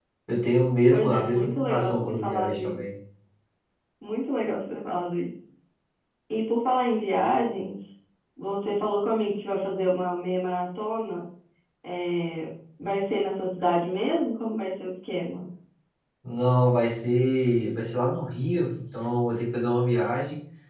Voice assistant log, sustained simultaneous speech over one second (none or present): present